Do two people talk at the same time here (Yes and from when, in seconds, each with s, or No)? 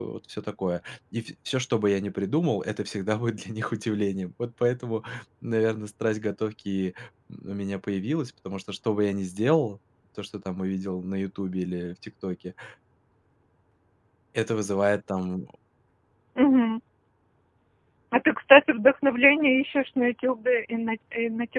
No